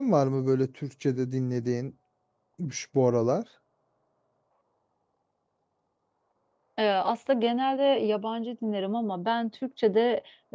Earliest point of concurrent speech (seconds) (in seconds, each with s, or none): none